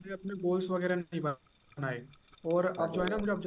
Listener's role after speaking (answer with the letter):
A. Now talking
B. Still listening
B